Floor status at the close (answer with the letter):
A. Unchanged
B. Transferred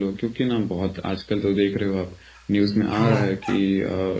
A